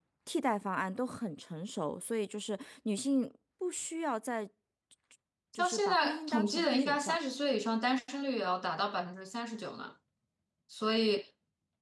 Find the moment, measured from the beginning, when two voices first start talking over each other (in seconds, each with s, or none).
5.5 s